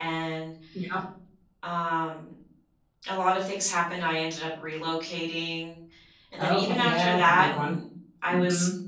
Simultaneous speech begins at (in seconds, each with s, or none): 6.4 s